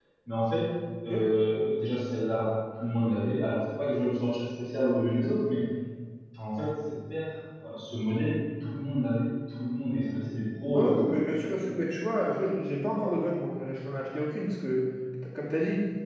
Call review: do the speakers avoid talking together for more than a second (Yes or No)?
Yes